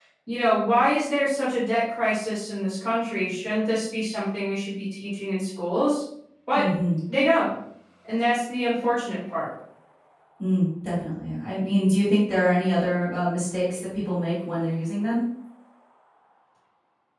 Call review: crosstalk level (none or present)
none